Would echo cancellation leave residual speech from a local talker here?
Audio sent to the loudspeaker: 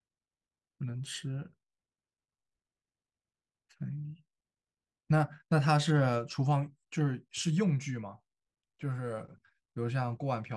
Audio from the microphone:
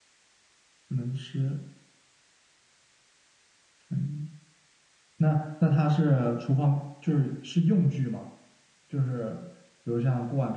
No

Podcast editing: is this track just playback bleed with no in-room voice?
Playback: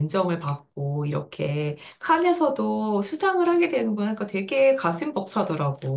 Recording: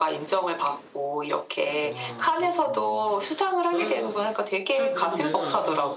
No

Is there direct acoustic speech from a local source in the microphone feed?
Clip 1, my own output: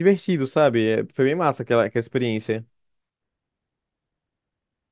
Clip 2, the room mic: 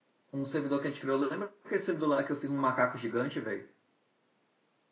Yes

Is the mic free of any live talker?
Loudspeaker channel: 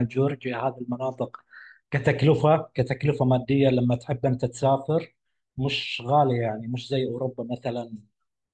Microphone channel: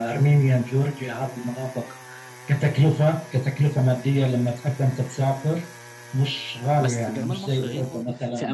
No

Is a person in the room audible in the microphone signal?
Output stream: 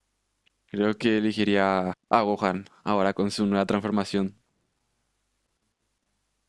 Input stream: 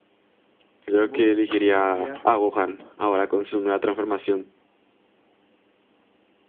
Yes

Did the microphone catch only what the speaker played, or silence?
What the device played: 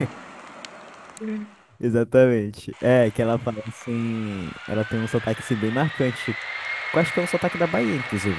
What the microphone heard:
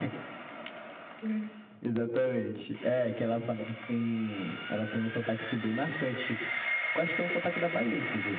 Yes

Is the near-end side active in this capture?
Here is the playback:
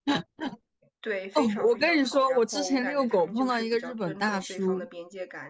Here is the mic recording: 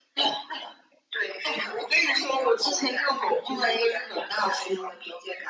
No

